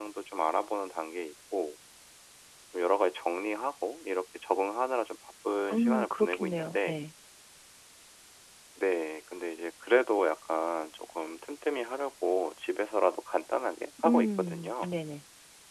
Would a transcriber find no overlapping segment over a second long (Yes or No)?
No